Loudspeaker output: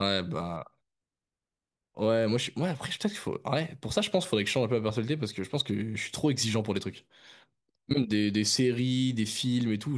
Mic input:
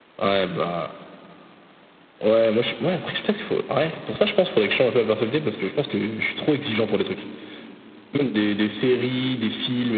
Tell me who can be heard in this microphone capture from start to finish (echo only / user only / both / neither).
echo only